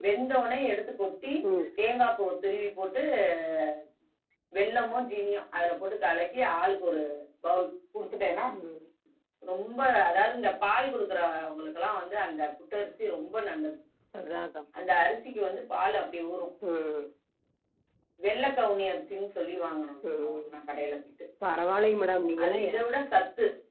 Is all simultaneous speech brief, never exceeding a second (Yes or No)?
Yes